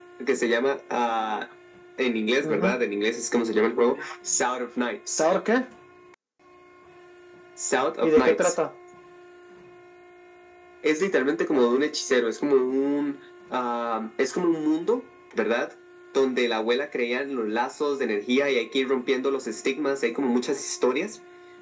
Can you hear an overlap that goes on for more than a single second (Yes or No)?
No